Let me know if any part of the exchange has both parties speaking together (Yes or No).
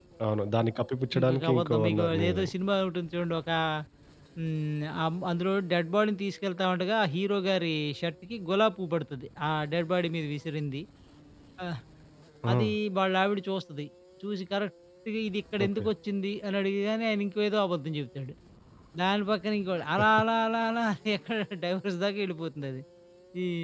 Yes